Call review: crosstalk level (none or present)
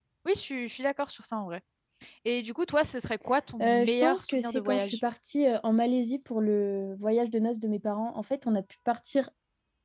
present